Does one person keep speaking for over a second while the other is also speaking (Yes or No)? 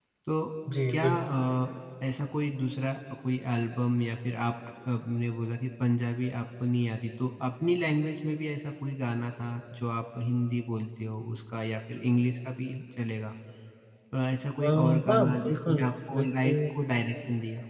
Yes